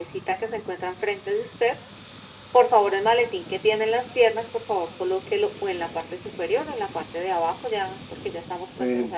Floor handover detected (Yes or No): Yes